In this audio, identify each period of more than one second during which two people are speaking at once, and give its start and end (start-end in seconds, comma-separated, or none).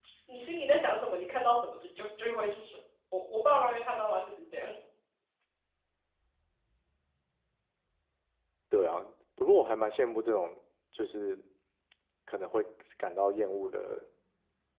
none